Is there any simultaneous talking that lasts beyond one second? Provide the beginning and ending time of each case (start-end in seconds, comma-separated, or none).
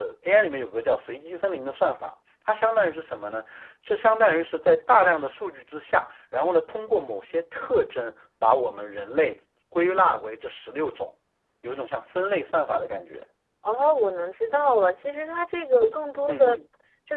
none